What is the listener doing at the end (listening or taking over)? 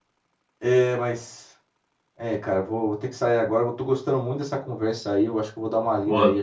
listening